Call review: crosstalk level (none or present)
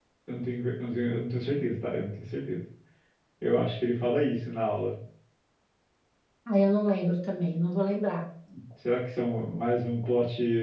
none